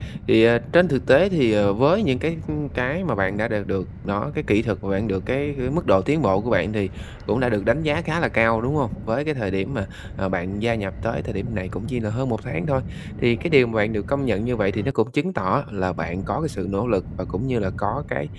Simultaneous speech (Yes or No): No